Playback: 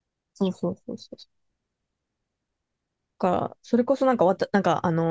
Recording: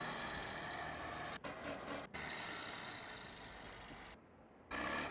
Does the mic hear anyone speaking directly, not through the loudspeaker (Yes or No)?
No